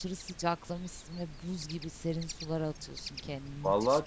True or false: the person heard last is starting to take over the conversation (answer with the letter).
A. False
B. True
B